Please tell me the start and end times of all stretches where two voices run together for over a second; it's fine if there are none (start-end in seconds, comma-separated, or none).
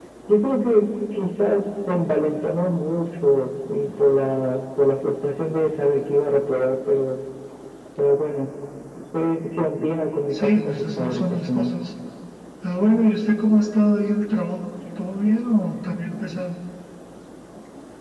10.3-11.7